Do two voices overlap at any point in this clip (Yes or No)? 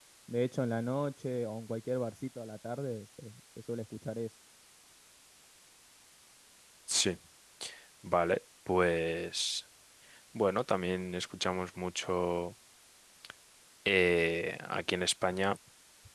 No